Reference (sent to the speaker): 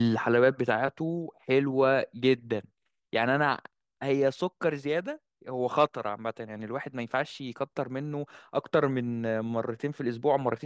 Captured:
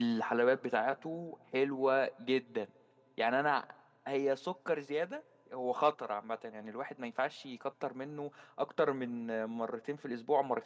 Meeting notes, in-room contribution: none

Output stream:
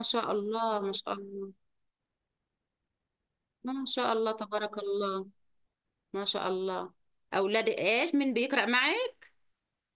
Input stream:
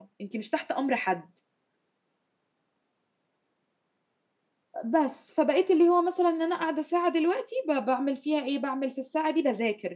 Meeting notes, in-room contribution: present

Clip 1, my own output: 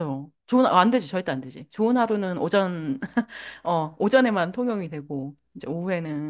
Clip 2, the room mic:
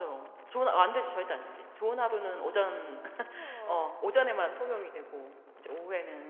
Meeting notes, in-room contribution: present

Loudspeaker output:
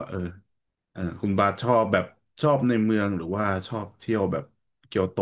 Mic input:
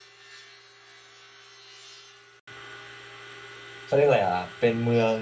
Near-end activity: present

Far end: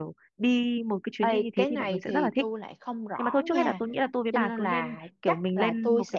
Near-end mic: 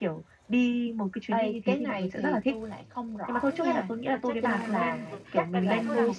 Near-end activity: present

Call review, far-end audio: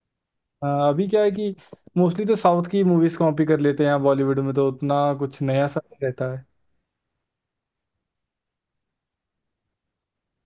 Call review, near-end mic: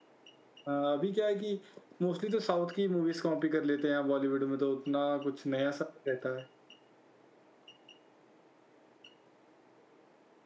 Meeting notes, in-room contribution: none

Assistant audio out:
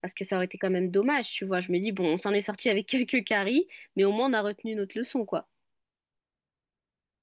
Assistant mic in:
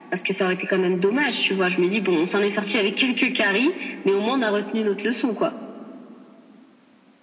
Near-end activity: none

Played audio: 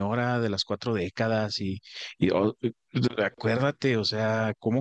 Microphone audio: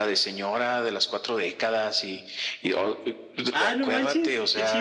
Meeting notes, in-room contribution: present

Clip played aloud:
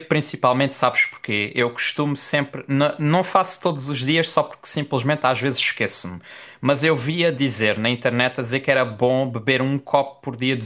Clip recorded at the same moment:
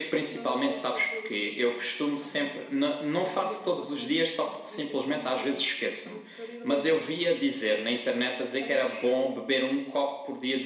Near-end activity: present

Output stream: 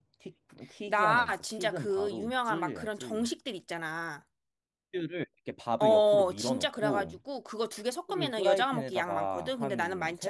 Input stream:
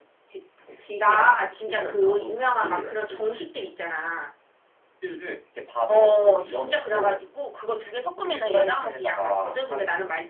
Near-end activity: none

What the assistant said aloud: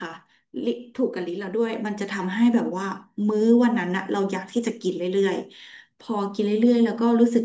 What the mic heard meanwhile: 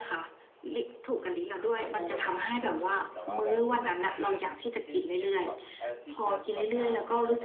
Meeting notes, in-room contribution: present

